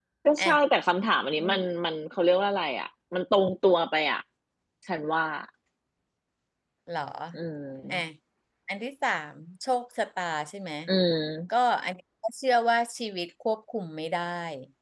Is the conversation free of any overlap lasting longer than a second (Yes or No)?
Yes